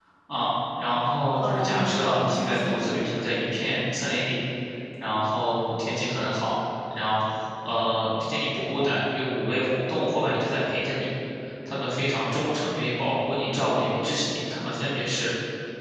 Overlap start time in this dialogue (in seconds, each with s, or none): 1.4 s